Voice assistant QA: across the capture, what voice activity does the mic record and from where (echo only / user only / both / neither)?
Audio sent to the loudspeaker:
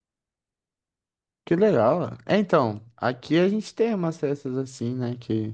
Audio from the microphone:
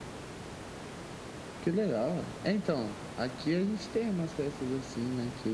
echo only